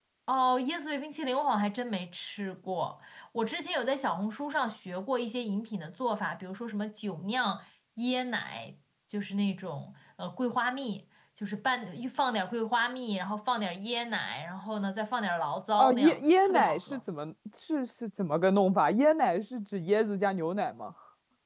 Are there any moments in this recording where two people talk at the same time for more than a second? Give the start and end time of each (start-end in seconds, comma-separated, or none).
15.8-17.0